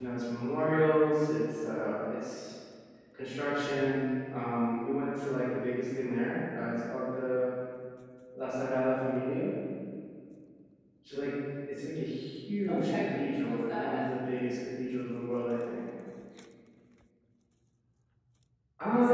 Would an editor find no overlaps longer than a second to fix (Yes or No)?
No